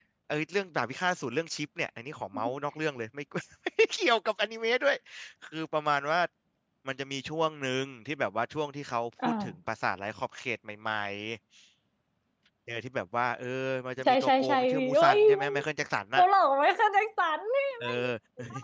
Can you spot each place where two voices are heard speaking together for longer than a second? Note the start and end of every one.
14.0-15.5

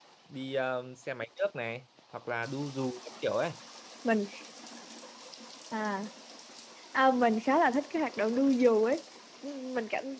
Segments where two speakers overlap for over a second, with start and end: none

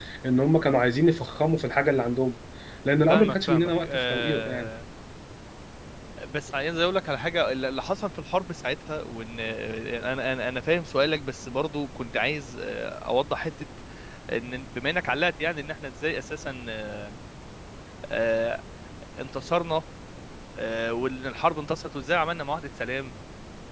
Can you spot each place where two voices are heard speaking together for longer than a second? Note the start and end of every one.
3.1-4.7

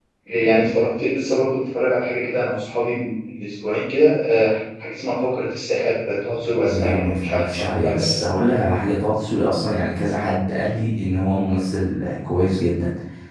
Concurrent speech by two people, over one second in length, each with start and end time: 6.7-8.2

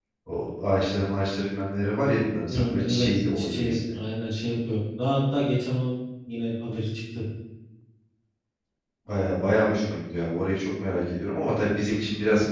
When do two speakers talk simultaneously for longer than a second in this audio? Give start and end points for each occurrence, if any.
2.5-3.9

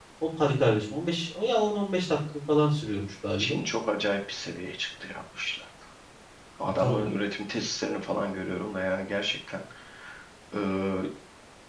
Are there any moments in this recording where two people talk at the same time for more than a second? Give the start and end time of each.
none

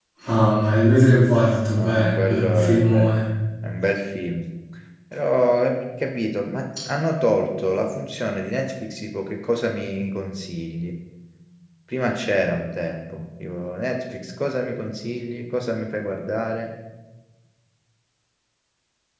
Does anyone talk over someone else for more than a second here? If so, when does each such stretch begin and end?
1.8-3.1

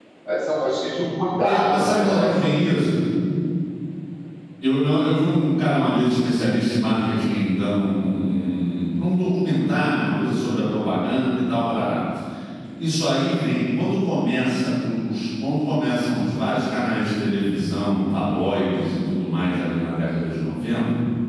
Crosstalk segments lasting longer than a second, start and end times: 1.4-2.7

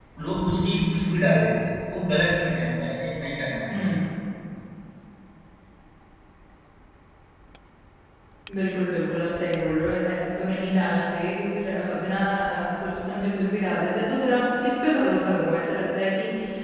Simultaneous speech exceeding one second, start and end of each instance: none

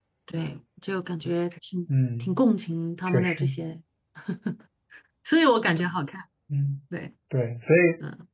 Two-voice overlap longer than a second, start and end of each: none

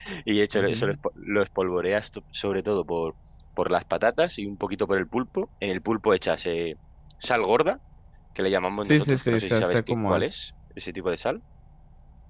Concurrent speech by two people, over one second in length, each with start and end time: 8.8-10.2

